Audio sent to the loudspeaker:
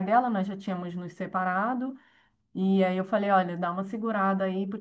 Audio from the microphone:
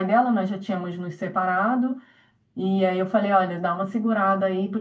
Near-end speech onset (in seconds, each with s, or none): none